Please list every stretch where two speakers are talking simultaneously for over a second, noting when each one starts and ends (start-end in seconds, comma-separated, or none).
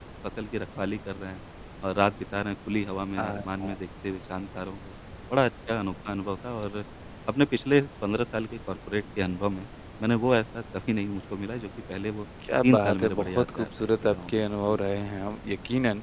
12.6-14.8